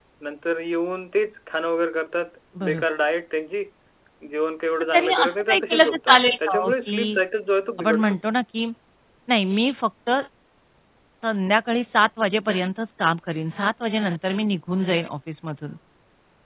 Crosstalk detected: Yes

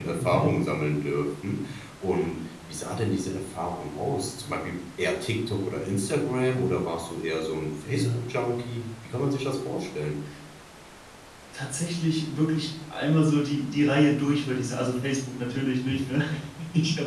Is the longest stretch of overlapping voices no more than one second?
Yes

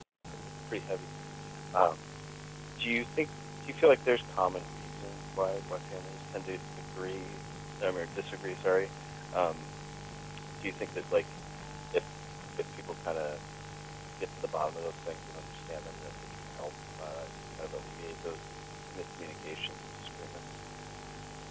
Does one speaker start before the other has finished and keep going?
No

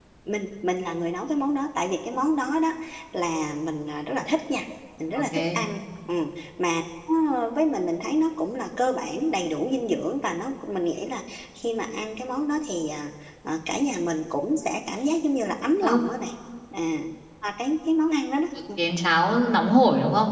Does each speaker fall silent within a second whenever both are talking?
Yes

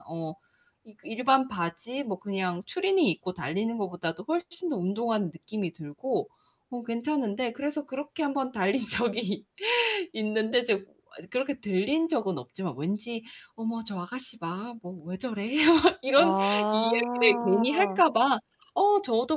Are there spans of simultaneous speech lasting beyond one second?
Yes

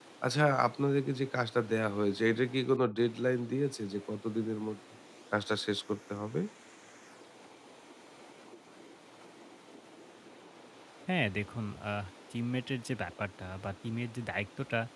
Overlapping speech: No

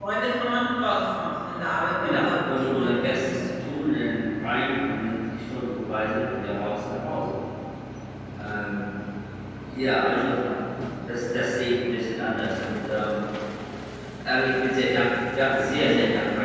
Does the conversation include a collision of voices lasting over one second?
Yes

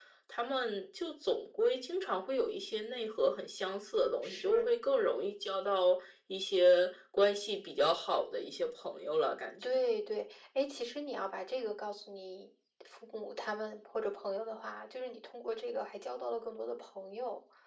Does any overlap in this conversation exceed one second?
No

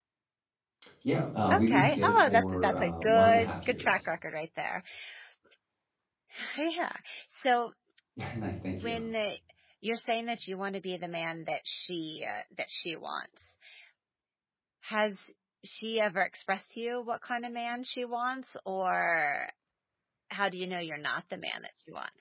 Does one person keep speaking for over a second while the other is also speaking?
Yes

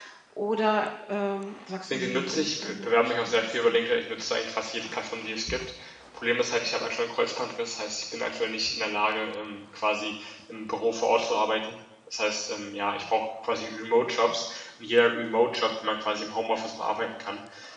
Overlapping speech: Yes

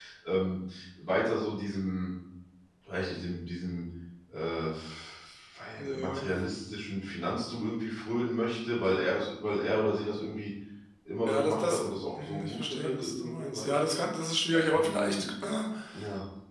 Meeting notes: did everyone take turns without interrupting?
No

